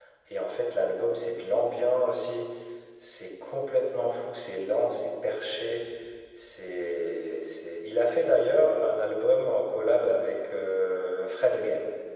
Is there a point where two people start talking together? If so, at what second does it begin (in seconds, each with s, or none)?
none